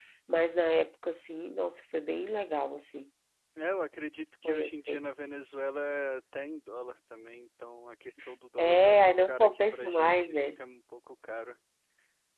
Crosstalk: present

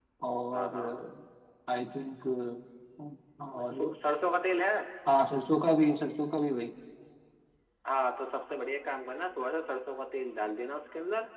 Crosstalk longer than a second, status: none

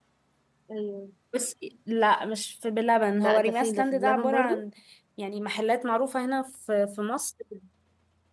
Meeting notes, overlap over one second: present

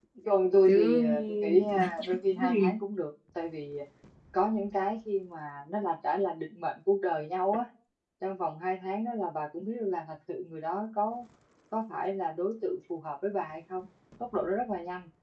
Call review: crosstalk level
present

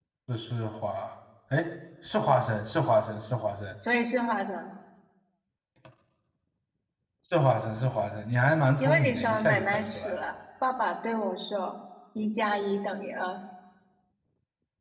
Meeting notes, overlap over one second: present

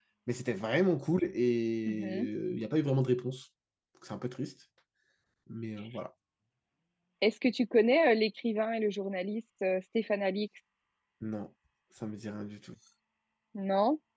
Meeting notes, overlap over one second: none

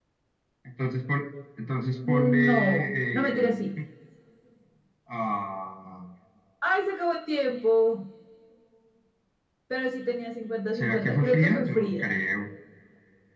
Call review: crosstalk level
present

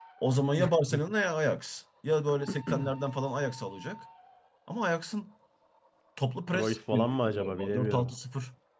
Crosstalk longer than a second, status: present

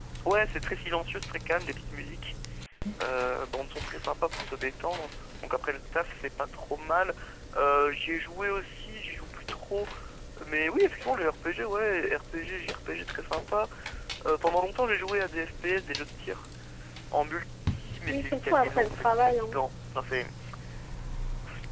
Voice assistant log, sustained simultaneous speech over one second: present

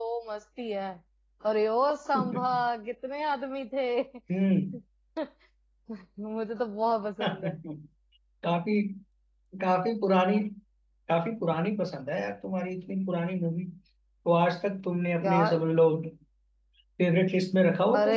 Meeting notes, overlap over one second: none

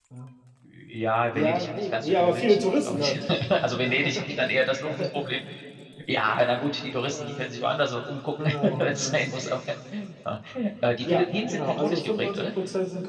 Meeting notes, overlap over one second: present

